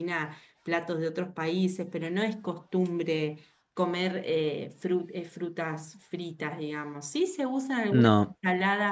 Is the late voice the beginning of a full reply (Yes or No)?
No